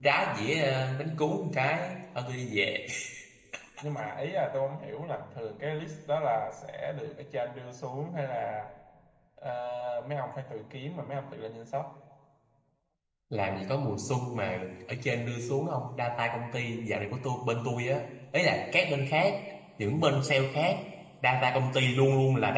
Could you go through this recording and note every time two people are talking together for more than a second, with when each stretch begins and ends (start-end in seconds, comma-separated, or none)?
none